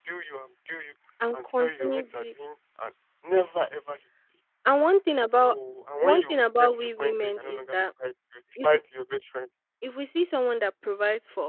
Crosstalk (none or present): present